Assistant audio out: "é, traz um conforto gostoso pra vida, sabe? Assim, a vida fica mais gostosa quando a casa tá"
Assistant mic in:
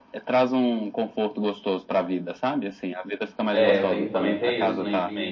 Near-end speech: present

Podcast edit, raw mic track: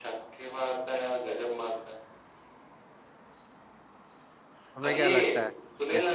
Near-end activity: present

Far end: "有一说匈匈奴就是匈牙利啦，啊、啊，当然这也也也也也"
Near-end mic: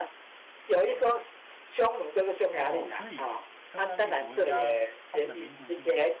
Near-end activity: present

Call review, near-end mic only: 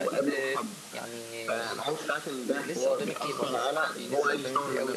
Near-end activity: present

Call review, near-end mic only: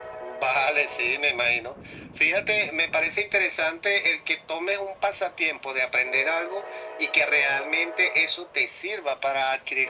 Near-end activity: none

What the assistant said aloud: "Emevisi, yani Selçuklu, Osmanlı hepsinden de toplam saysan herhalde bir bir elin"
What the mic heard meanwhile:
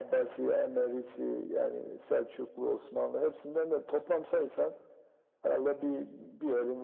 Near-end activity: none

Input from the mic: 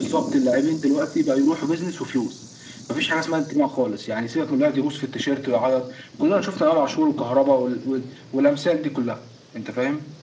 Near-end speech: none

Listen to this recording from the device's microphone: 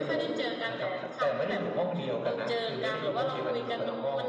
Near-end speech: none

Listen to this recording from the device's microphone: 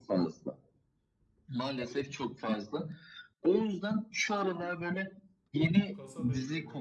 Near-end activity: present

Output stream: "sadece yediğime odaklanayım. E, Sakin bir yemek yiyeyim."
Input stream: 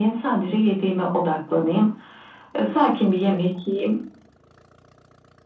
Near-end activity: none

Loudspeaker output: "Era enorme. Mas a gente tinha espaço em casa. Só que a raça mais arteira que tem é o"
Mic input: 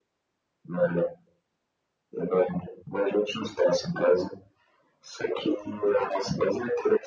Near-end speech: none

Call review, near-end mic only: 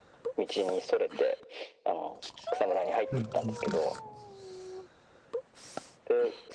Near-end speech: present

